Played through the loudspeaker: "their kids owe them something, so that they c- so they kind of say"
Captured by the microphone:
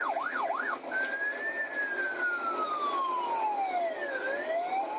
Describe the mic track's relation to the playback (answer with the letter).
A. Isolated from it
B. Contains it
A